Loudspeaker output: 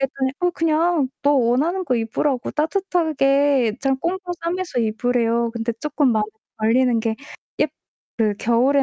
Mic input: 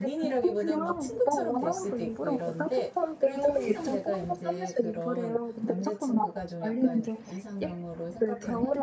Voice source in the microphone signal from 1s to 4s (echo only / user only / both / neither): both